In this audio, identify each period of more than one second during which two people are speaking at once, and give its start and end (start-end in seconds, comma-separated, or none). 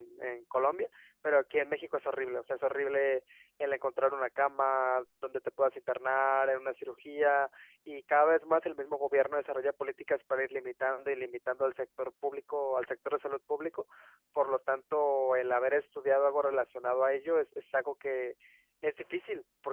none